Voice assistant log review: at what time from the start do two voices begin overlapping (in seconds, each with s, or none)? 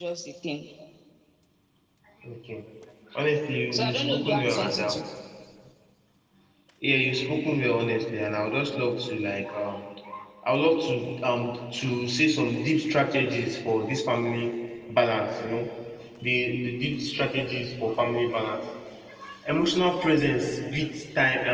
3.7 s